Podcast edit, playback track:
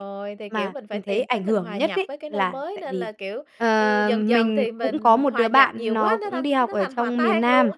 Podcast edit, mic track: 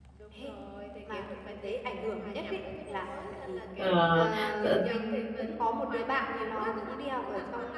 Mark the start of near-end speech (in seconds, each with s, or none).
3.8 s